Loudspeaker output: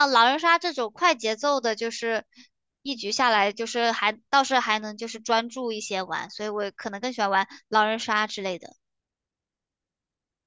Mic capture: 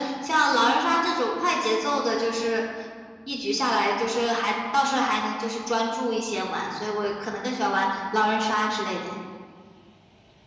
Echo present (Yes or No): Yes